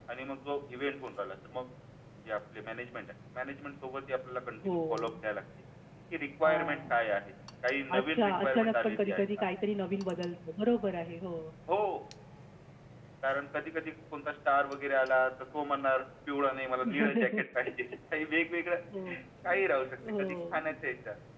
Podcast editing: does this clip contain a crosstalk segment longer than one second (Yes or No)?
Yes